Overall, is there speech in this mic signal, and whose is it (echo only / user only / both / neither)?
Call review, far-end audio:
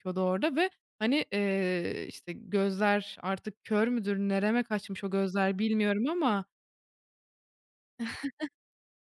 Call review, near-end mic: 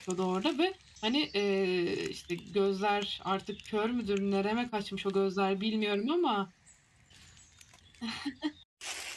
echo only